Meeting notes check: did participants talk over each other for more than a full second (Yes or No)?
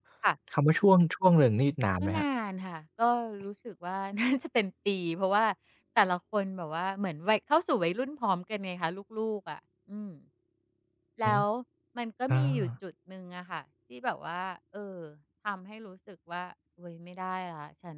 No